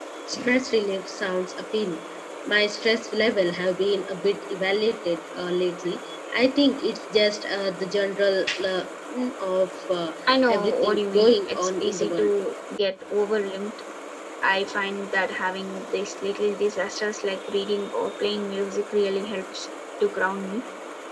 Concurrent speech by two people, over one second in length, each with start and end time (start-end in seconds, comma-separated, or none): 10.5-12.3